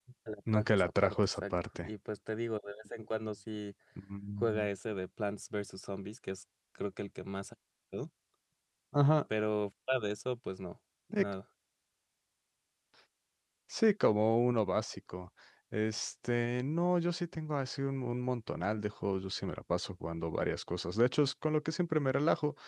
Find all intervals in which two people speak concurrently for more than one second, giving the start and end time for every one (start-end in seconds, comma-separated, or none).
0.6-1.9